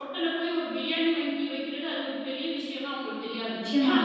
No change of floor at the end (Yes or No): No